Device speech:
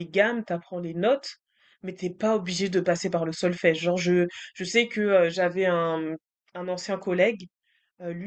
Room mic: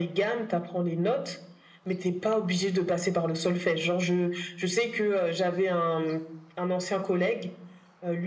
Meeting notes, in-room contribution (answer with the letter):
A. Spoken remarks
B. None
B